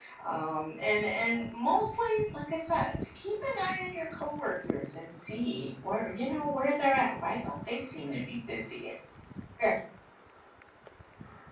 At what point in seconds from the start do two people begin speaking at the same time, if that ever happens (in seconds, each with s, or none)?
none